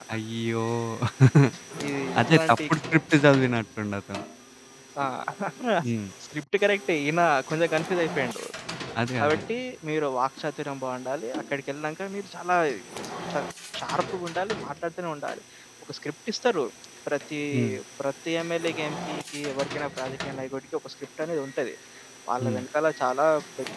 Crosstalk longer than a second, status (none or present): none